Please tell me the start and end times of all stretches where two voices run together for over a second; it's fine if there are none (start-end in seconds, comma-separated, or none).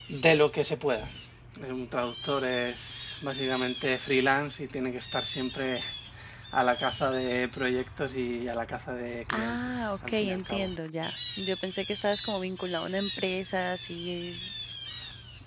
9.3-10.7